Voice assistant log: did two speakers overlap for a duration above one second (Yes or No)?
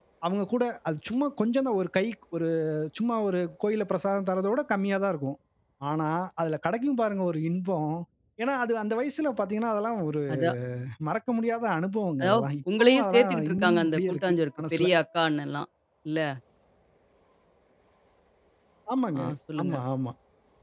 Yes